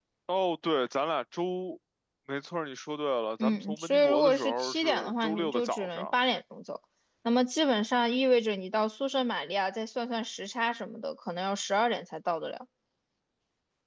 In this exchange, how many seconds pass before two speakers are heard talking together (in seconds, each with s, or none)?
3.4 s